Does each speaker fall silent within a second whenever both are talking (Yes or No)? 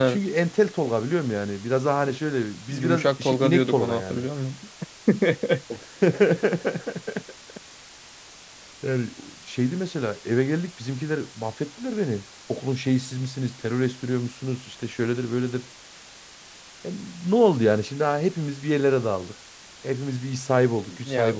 No